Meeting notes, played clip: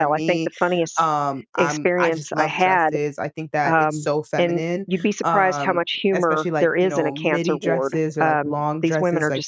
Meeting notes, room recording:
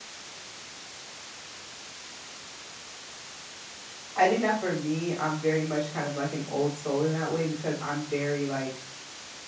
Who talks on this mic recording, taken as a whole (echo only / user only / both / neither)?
user only